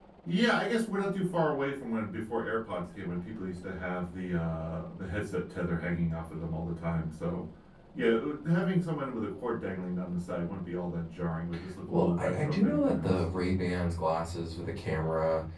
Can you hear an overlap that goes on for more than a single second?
Yes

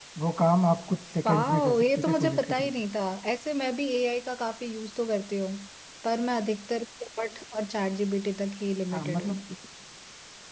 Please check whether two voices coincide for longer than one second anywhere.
Yes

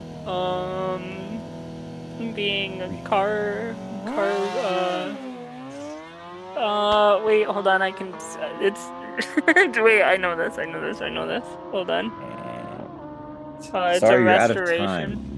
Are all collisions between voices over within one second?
No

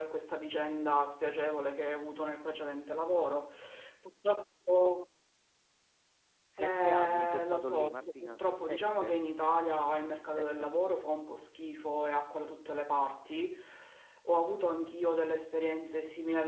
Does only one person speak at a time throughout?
No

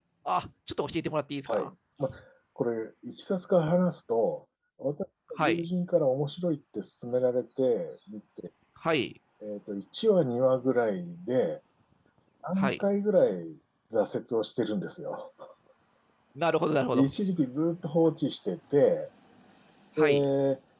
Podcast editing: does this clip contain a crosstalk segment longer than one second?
No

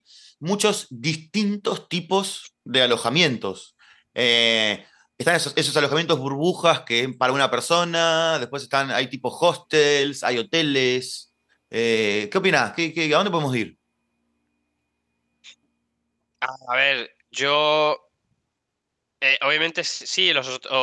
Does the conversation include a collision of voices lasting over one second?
No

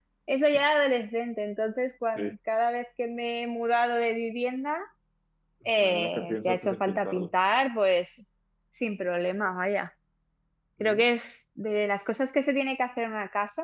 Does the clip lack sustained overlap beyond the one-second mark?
No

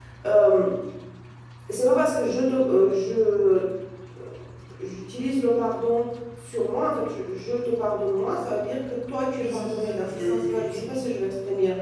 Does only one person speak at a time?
No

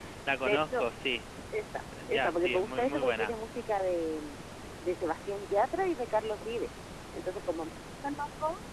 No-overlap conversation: No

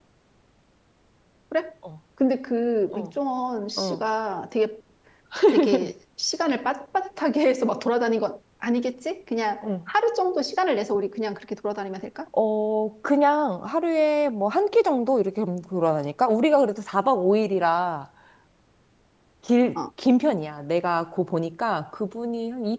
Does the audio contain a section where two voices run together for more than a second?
No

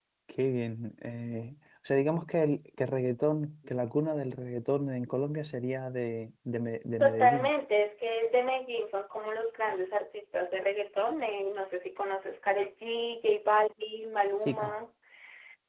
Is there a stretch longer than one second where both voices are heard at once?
No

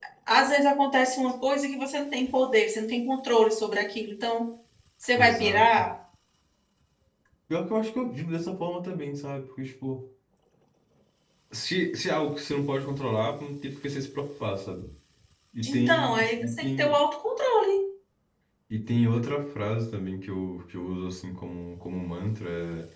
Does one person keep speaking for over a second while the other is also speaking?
Yes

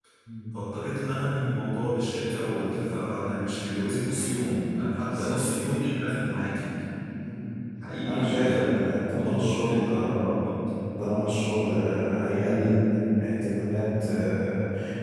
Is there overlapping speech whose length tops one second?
Yes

